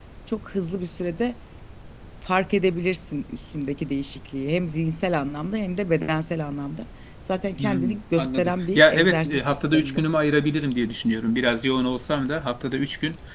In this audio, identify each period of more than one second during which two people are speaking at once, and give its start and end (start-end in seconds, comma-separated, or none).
7.6-10.1